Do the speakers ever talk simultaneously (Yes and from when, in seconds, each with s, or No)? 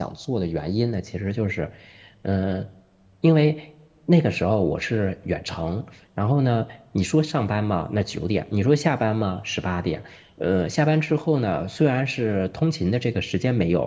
No